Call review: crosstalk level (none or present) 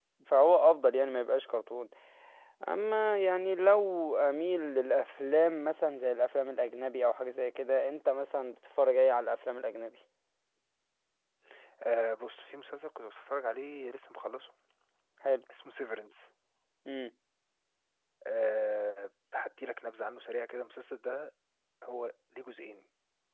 none